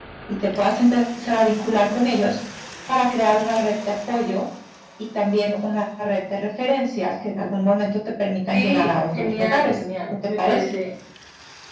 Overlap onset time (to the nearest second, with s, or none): 9 s